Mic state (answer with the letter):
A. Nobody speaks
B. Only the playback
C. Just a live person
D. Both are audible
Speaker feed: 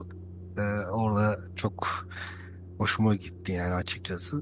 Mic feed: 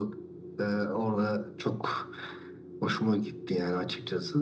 B